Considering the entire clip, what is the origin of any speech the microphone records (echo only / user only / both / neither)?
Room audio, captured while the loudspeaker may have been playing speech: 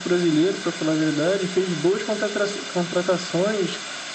echo only